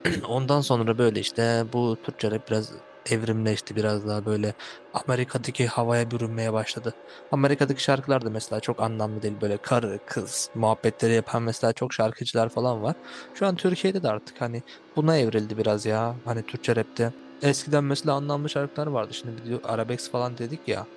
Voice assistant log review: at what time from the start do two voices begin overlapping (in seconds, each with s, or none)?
none